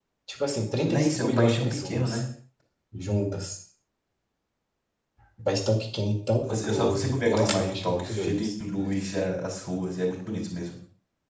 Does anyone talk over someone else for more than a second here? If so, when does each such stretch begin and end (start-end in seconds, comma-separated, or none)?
0.8-2.2, 6.4-8.5